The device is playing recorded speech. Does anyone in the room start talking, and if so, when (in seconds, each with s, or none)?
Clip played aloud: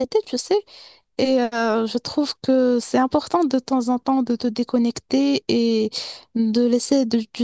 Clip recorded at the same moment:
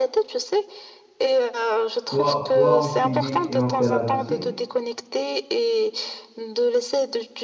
2.0 s